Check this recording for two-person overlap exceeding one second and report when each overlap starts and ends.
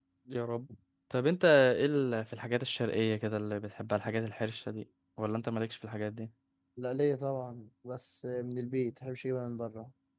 none

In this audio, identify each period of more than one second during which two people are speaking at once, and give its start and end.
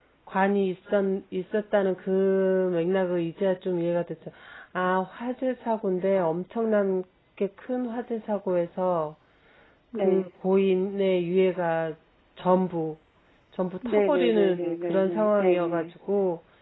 13.8-15.8

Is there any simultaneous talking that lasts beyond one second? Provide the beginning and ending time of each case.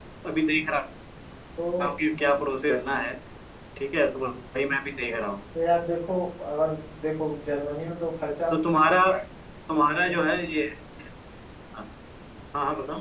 none

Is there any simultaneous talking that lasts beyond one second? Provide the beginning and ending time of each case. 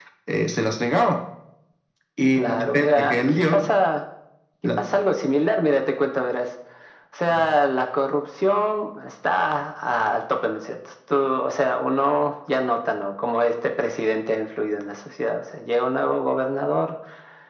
2.4-3.7

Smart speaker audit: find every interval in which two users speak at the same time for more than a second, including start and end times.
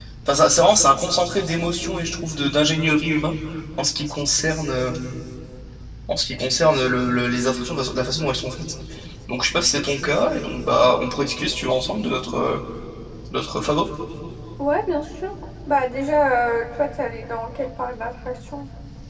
none

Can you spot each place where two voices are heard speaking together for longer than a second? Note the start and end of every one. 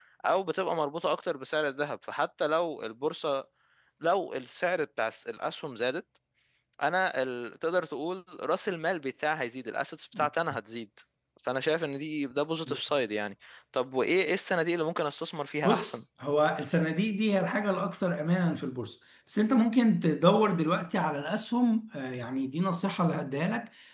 none

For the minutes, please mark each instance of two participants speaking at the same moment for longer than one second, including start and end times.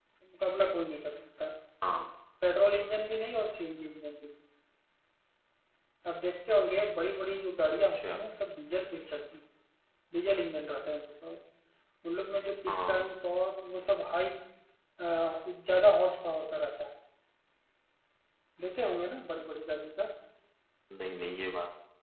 none

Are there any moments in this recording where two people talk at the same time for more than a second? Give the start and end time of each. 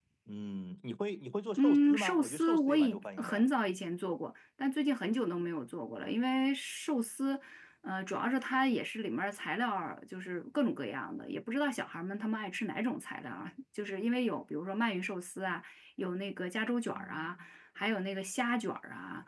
1.6-3.4

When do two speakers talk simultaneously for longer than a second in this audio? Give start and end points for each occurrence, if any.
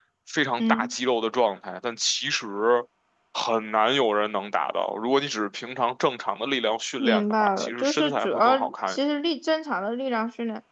7.0-9.0

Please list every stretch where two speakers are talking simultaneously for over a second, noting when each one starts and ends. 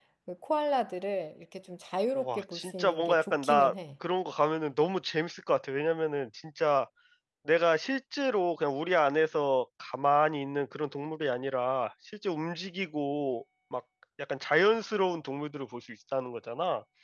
2.1-3.7

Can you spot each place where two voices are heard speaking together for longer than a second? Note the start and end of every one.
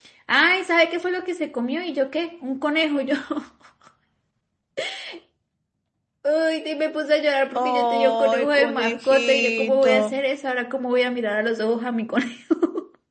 7.5-10.0

